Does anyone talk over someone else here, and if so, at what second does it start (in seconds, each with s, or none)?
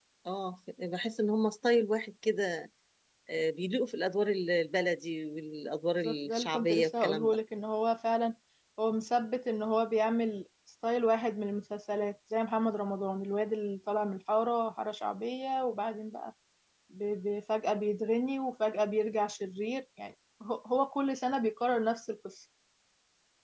6.0 s